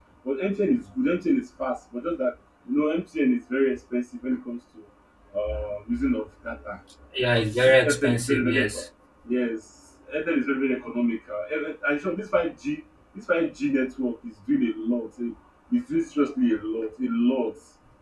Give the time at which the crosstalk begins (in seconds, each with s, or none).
7.3 s